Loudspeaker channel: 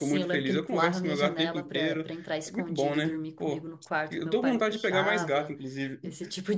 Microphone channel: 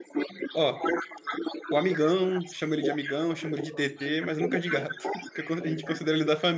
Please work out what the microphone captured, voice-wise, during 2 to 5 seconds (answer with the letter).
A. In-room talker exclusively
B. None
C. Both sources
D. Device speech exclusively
C